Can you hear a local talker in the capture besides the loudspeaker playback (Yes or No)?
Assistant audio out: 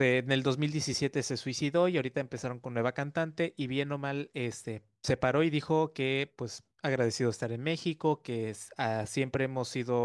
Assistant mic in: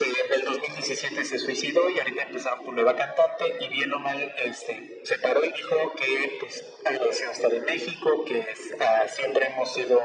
No